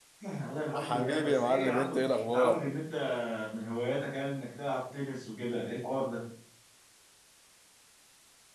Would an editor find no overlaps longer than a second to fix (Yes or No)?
No